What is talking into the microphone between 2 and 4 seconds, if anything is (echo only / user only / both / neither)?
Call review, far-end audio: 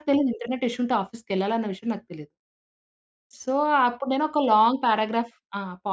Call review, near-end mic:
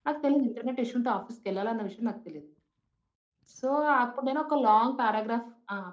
echo only